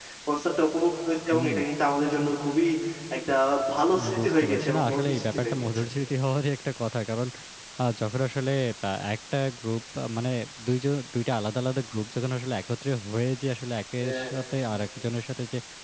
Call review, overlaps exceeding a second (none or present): present